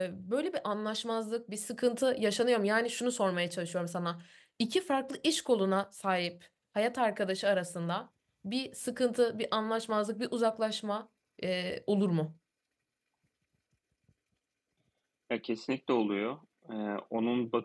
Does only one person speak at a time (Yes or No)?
Yes